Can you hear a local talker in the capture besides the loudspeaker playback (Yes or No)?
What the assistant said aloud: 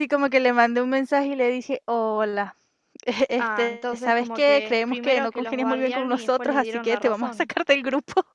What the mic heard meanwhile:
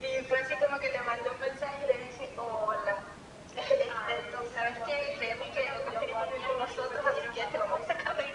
No